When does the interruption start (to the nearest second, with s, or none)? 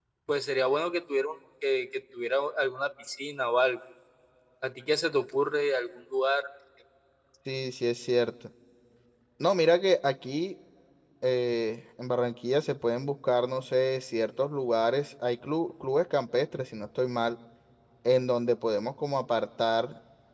none